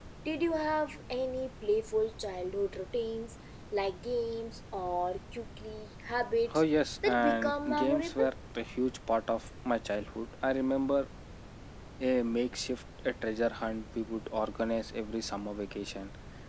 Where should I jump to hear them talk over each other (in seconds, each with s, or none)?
7.0 s